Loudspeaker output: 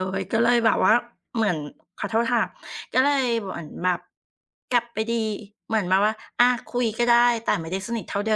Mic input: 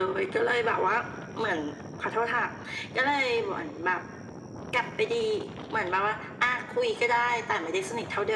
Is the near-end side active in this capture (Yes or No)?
No